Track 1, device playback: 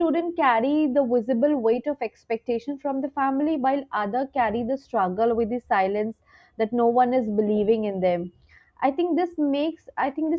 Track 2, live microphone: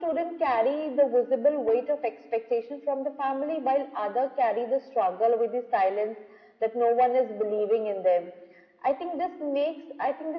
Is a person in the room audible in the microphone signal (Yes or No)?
No